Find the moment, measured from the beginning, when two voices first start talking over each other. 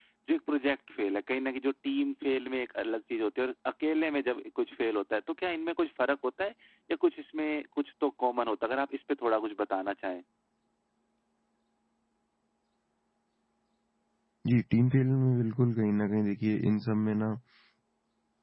none

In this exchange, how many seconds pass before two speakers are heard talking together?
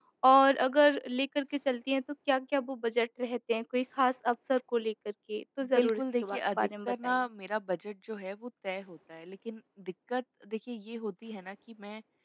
5.8 s

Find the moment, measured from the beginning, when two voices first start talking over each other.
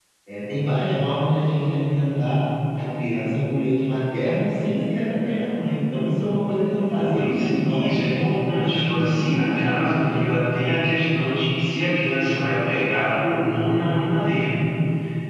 6.9 s

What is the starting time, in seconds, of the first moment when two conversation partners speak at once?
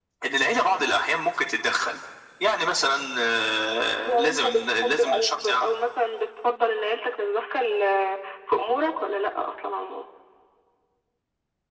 4.0 s

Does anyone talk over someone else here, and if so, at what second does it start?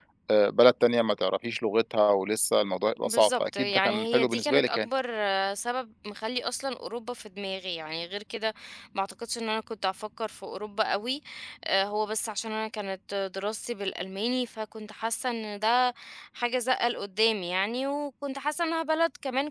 3.0 s

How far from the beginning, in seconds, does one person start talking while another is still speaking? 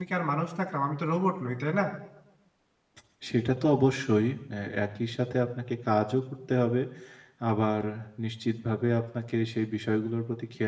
none

